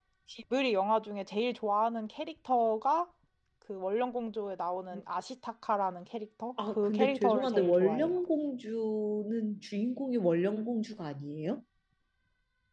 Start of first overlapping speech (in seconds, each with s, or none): 6.6 s